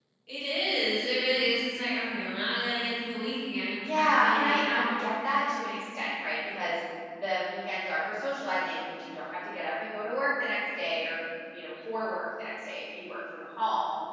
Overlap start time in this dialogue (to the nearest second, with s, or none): 4 s